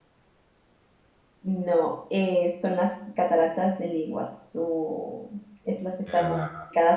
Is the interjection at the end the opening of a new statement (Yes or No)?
No